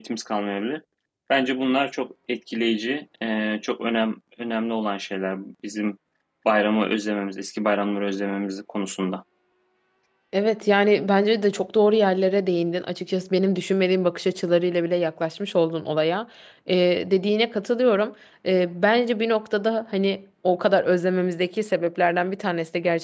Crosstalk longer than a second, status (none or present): none